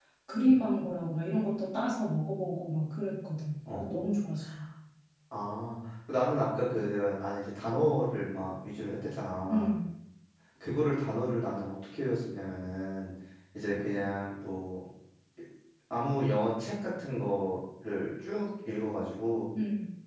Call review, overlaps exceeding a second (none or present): none